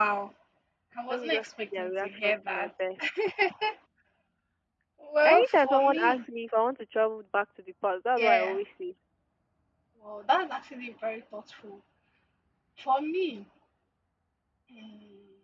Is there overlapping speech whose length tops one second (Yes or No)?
Yes